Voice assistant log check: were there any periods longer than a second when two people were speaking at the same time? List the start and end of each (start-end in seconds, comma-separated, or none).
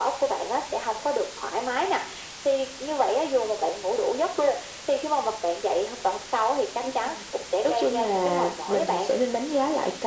7.6-9.1